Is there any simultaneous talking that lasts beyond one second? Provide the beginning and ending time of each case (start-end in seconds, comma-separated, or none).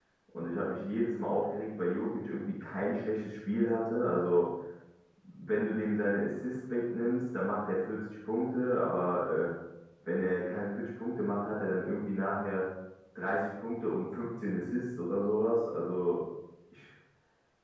none